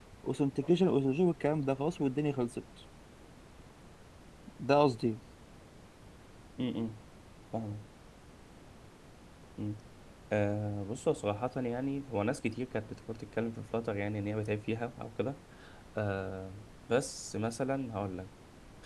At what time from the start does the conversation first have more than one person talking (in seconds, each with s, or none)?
none